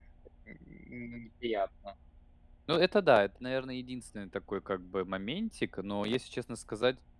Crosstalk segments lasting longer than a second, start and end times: none

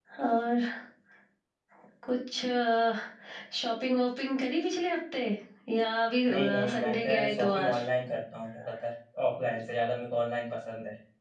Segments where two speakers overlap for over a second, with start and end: 6.3-7.7

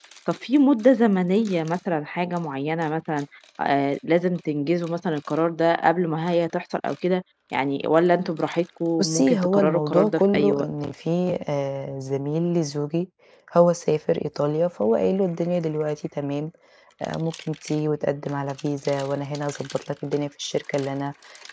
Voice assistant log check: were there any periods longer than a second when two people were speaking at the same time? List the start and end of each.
9.0-10.7

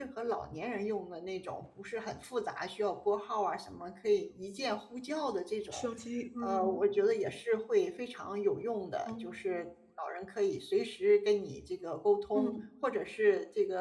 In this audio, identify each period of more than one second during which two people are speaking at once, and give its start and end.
none

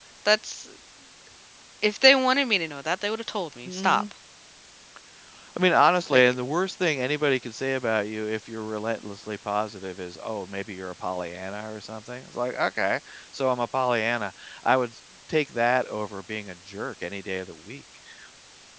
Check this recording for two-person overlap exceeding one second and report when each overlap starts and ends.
none

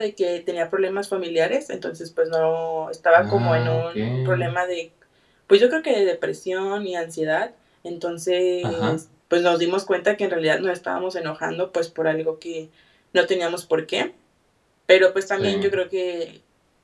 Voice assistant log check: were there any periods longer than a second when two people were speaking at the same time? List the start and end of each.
3.2-4.5

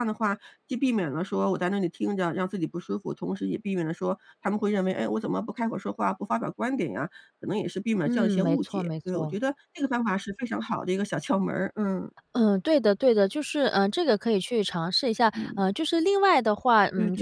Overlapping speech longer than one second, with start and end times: 8.1-9.3

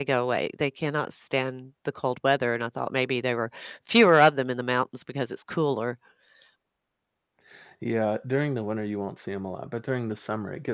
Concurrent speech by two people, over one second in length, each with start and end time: none

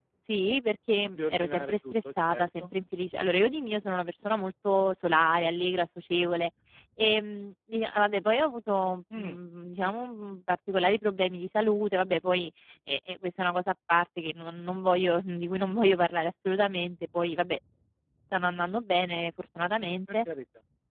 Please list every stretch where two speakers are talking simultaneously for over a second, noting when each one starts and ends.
1.1-2.7

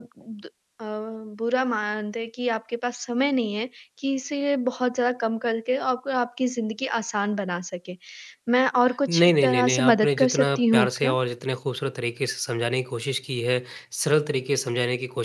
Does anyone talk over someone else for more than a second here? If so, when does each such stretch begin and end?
9.1-11.1

